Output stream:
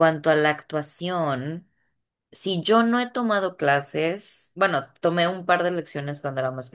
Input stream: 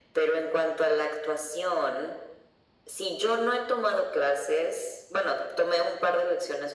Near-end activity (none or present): none